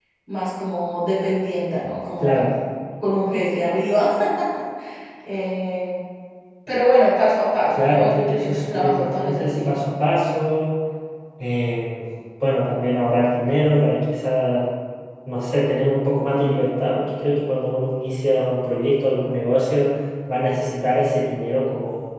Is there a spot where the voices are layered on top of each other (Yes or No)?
Yes